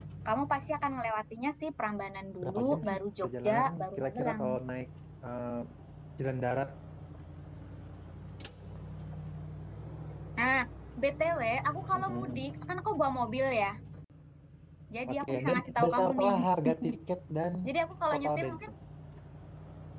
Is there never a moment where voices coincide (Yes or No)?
No